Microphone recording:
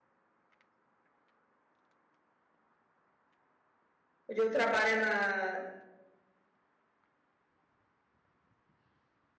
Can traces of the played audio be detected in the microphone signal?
No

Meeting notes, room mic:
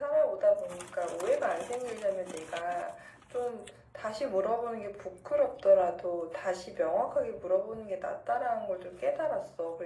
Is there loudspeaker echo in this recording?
Yes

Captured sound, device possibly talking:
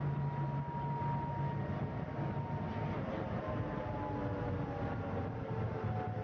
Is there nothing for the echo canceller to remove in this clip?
Yes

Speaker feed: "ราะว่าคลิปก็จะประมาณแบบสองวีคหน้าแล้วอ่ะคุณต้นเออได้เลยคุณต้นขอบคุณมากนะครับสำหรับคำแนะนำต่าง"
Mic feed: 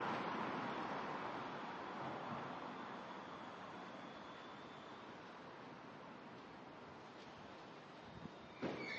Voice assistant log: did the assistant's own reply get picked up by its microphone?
No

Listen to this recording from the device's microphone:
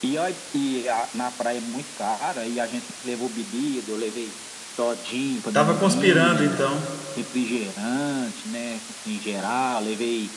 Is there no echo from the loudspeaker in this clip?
No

